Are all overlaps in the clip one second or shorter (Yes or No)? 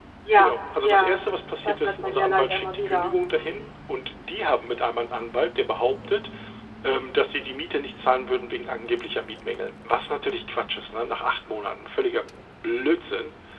No